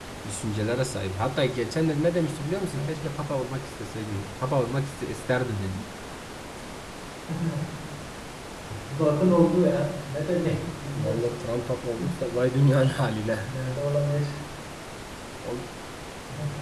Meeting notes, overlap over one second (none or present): none